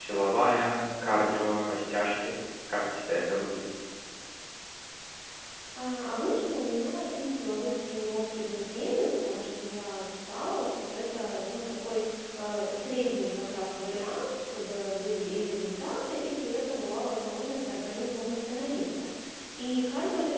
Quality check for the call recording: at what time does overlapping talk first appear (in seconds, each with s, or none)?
none